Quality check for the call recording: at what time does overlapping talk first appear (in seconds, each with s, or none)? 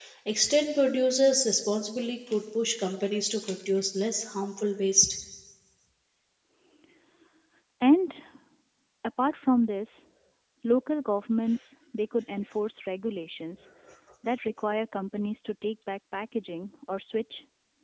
none